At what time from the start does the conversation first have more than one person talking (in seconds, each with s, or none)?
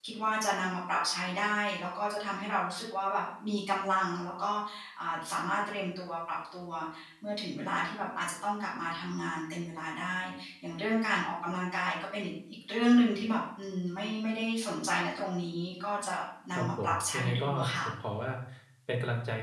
16.6 s